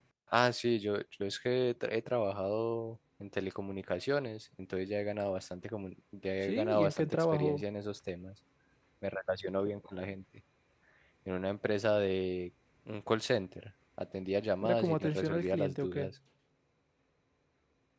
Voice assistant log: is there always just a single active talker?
No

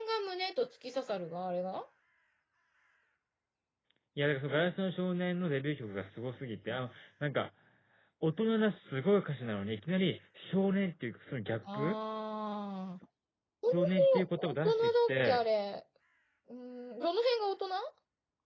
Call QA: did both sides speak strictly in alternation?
No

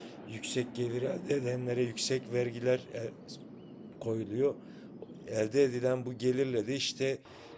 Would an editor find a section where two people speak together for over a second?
No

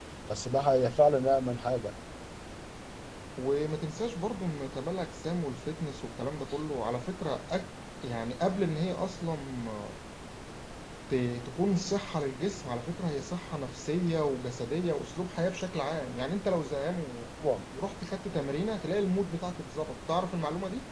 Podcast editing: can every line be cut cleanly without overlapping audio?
Yes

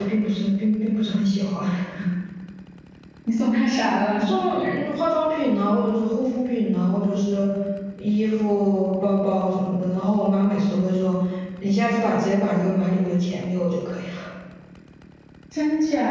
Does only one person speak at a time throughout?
Yes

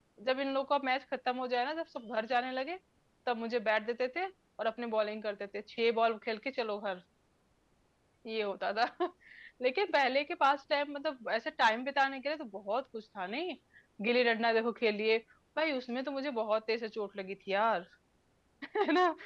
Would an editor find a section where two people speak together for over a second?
No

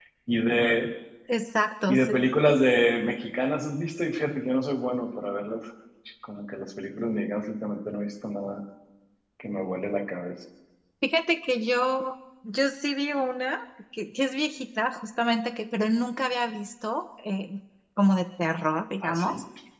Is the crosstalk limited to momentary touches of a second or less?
Yes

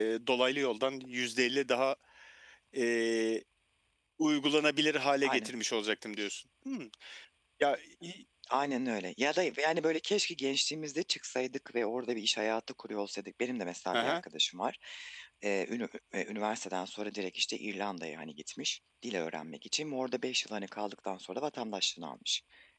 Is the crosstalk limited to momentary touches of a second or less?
Yes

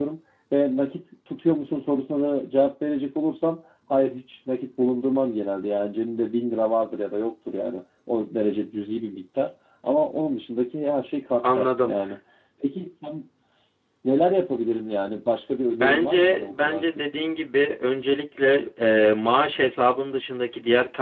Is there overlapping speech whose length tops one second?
Yes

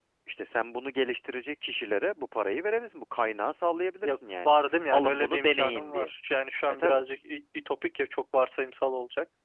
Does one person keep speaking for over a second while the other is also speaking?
Yes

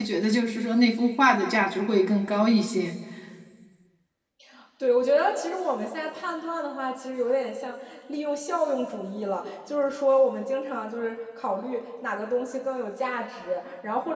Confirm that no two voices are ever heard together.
Yes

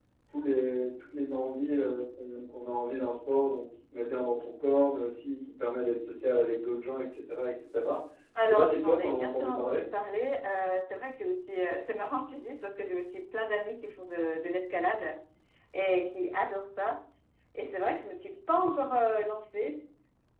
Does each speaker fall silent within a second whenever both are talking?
No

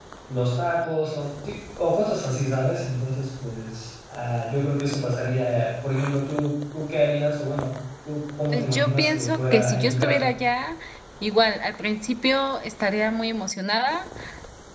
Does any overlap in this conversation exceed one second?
Yes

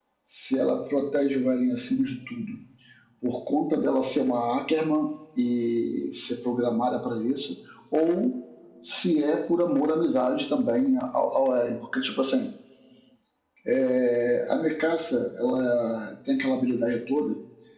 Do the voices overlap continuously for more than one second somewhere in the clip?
No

